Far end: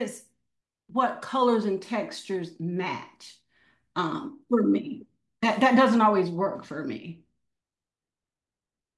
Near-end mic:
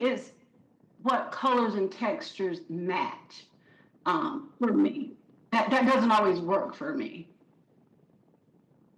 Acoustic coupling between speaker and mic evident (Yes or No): Yes